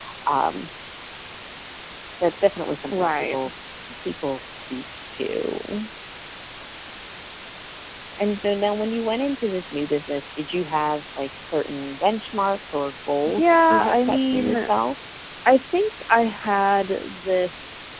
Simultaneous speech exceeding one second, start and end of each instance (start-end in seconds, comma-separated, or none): 13.2-14.7